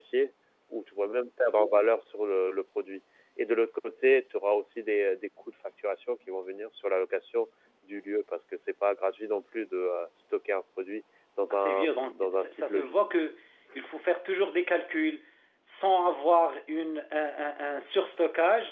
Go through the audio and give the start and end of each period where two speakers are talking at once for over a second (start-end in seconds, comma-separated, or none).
11.5-13.0